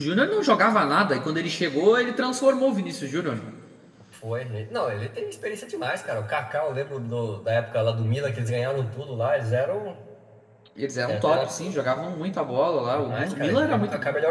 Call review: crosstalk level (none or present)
present